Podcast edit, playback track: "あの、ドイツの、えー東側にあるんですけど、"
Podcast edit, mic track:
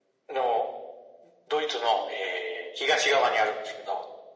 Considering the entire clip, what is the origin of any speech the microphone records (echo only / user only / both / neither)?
echo only